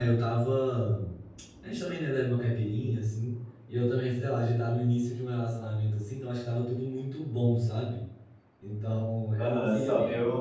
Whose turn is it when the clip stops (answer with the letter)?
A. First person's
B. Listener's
B